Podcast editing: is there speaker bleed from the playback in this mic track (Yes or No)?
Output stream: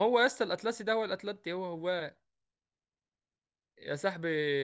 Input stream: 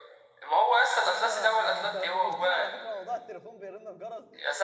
Yes